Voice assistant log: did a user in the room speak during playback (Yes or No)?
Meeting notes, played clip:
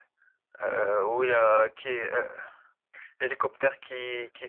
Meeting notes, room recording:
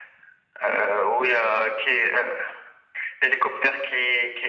No